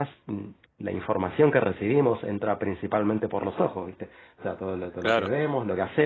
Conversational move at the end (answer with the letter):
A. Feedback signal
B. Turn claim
A